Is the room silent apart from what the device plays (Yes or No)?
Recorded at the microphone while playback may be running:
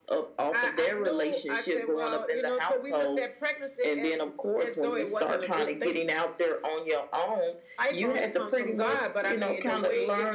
Yes